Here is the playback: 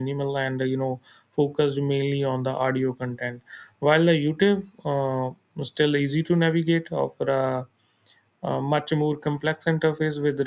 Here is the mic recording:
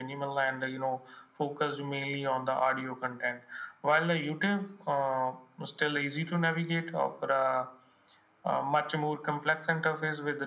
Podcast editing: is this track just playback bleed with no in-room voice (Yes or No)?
Yes